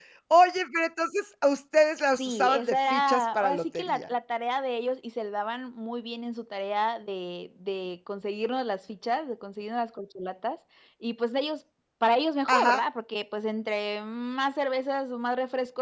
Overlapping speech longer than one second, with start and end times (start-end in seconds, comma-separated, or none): 2.2-4.0